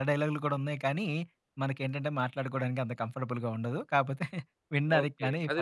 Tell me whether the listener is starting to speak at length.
Yes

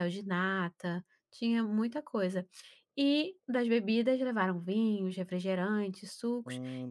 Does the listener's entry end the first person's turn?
No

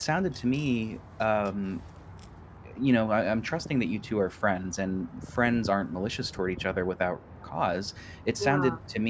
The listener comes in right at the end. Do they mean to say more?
No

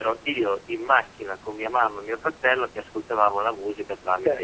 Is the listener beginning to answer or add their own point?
Yes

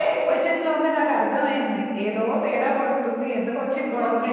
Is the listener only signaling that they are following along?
No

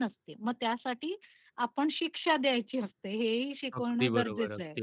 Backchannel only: No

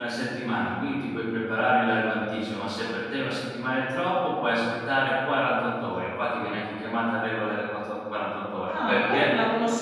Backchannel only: No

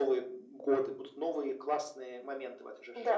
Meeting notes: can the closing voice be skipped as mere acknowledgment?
No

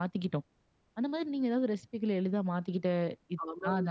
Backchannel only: No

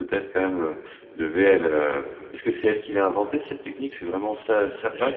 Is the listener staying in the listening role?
No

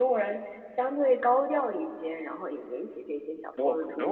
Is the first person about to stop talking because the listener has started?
Yes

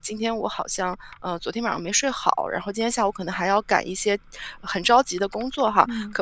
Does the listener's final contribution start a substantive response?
No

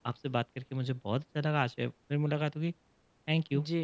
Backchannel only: No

